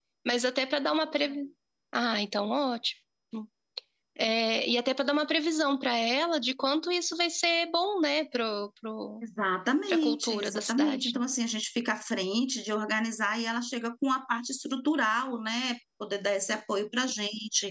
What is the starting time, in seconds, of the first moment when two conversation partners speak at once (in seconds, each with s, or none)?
9.9 s